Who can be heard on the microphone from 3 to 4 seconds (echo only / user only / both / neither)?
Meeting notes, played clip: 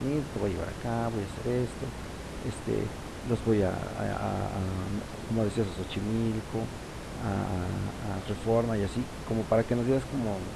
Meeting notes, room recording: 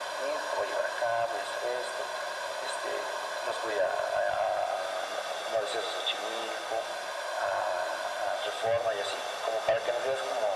echo only